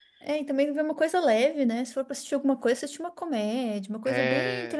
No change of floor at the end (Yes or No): Yes